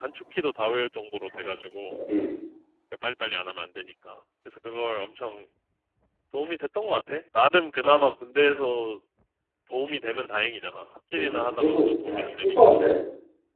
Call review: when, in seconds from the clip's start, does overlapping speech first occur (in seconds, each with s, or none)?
11.2 s